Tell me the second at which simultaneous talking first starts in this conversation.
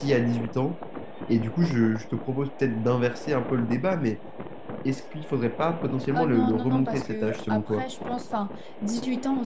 6.1 s

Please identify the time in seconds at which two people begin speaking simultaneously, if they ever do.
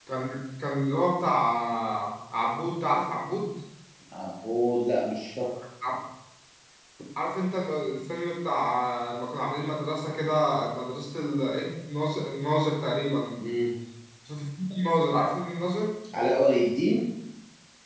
none

